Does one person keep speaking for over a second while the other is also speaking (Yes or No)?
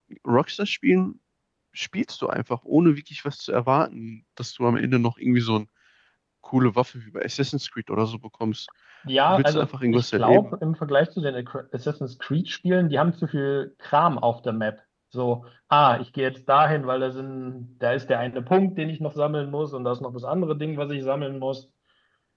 Yes